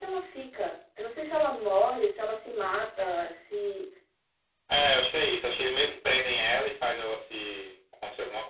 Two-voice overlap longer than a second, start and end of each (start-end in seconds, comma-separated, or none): none